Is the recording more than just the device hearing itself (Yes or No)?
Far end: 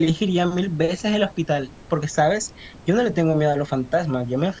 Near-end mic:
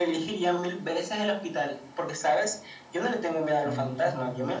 Yes